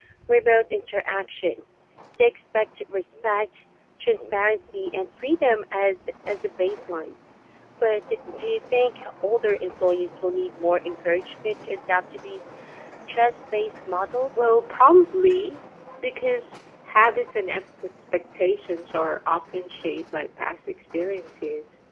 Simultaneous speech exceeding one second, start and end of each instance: none

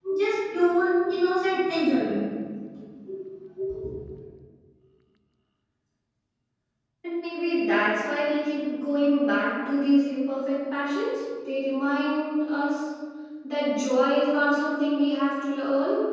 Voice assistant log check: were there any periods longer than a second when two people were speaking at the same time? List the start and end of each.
none

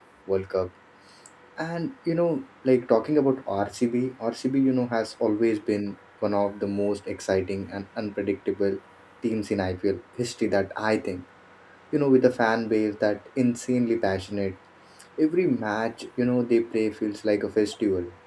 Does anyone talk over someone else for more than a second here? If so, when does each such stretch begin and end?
none

